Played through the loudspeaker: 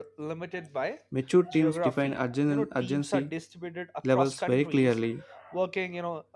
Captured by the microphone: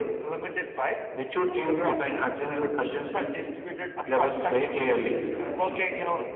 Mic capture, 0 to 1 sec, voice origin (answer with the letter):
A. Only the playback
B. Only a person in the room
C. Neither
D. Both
A